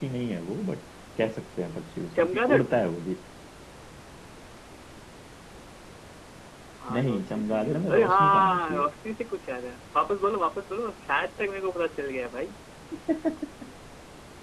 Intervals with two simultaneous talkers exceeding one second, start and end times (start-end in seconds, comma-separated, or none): 6.9-8.8